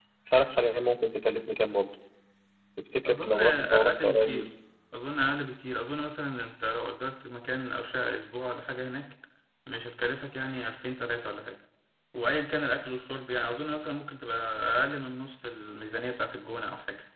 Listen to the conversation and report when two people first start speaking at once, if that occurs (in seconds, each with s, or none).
3.1 s